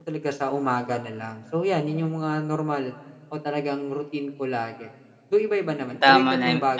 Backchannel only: No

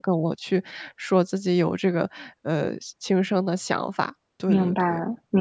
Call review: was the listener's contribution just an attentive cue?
No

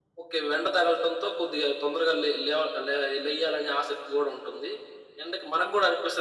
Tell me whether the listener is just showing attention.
Yes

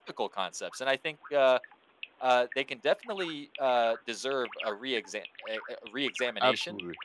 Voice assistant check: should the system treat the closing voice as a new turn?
No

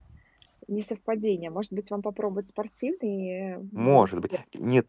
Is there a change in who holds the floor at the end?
Yes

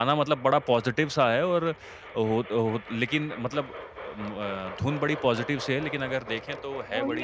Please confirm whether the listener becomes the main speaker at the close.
Yes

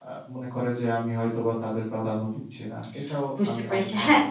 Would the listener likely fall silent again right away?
No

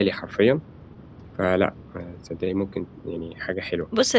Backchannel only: No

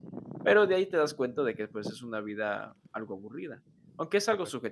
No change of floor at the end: Yes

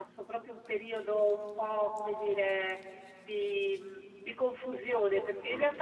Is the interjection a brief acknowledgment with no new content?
Yes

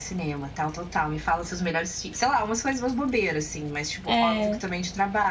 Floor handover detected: No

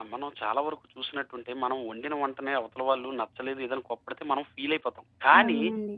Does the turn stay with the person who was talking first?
Yes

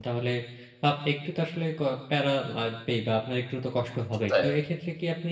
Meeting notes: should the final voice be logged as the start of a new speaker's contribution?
No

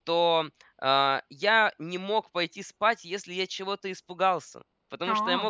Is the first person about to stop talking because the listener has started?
No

